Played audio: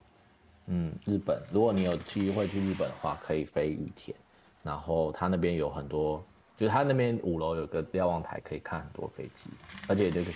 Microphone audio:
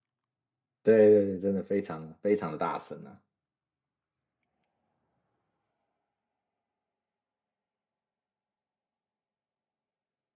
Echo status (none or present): none